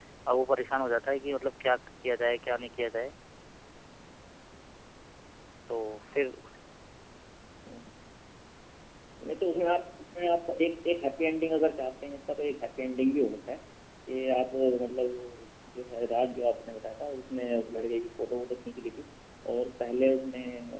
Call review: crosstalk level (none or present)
none